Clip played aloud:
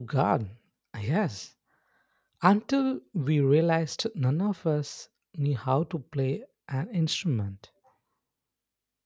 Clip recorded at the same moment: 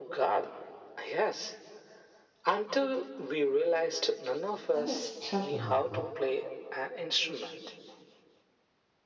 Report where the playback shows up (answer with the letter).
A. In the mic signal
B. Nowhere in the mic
A